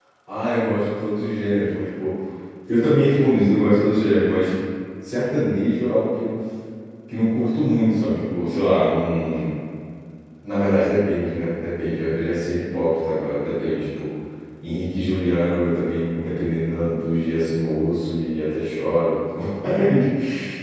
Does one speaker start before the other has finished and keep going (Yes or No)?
No